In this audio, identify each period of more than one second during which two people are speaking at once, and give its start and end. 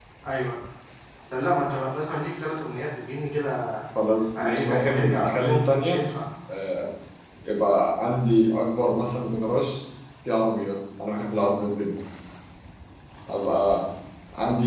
4.4-6.1

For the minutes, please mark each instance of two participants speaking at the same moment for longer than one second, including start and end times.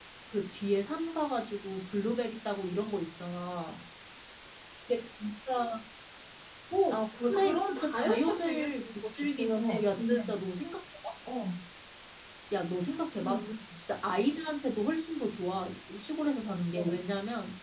6.9-10.2

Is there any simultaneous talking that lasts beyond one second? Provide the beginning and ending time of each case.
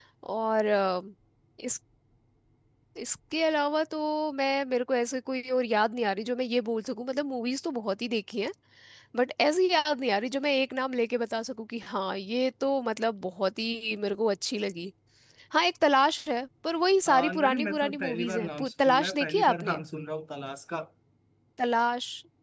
17.1-19.8

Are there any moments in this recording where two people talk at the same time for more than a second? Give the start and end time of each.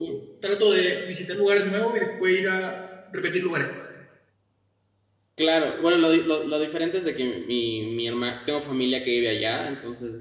none

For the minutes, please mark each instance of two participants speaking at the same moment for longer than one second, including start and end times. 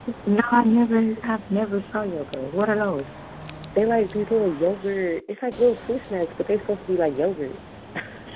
none

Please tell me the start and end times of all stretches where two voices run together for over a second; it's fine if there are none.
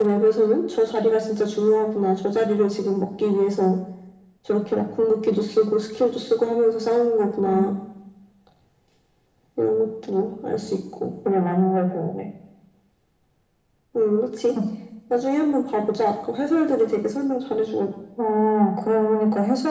none

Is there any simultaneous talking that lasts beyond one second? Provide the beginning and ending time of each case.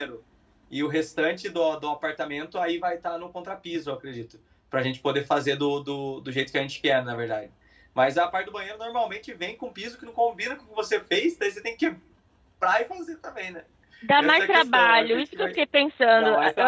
14.2-15.5

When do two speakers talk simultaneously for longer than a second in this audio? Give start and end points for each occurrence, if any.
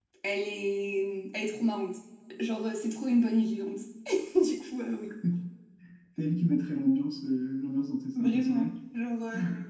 none

